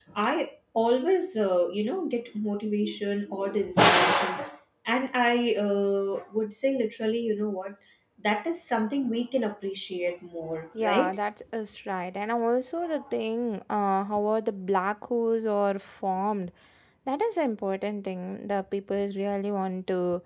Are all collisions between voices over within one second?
Yes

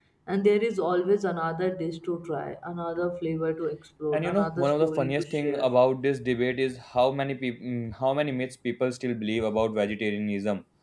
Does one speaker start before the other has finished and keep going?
Yes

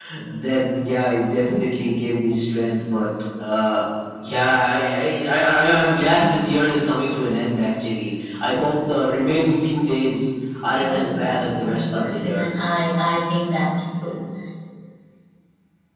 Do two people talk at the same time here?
Yes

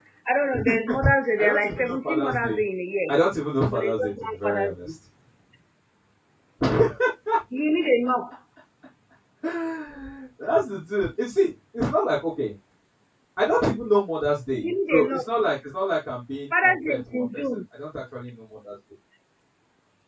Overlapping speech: Yes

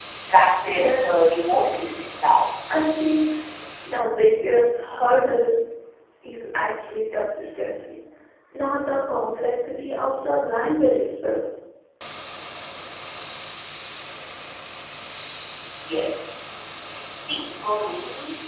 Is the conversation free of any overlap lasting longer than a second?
No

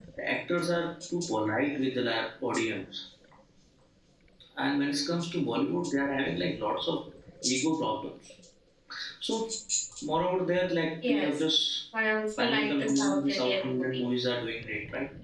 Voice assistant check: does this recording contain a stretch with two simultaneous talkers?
Yes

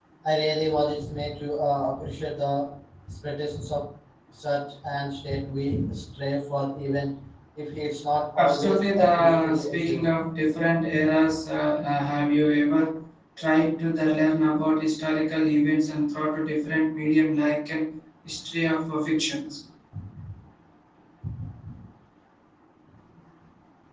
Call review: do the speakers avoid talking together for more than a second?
No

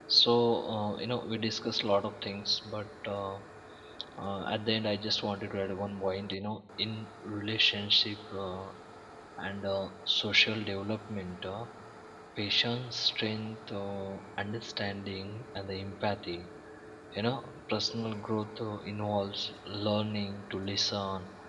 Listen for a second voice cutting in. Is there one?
No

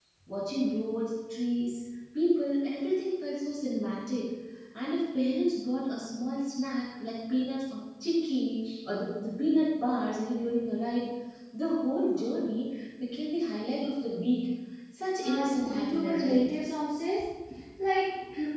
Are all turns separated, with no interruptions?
No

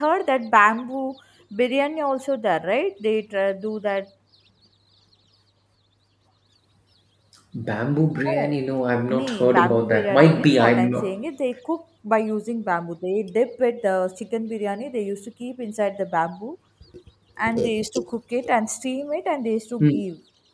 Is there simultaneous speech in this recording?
Yes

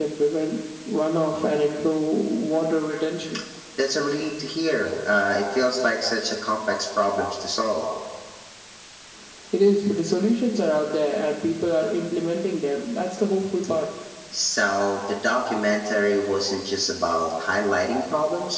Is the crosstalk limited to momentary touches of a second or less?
Yes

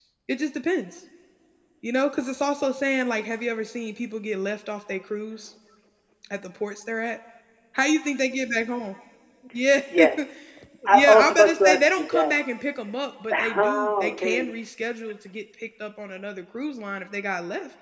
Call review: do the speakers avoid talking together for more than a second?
No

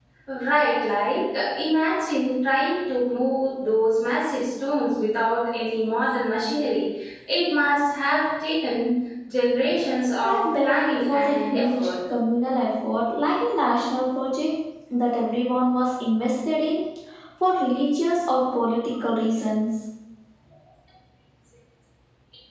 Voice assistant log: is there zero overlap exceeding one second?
No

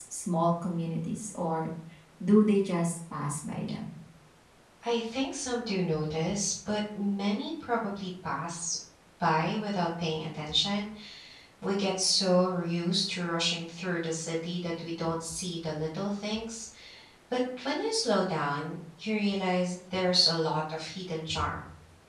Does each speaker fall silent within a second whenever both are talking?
Yes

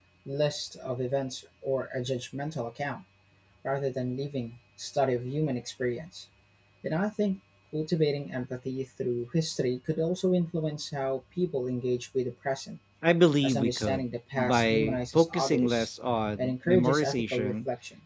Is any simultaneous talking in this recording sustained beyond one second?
Yes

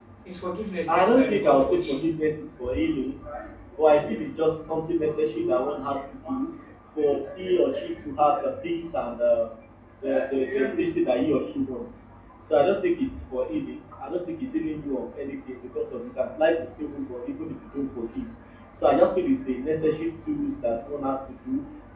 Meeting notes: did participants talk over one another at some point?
Yes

